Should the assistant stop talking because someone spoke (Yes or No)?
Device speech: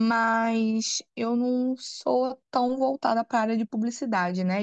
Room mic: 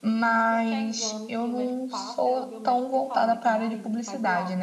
Yes